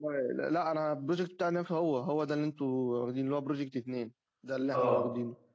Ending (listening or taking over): taking over